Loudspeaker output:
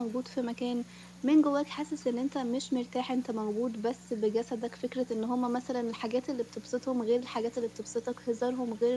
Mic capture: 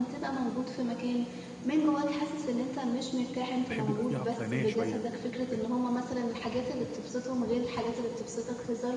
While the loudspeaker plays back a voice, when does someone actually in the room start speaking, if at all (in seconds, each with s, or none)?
3.7 s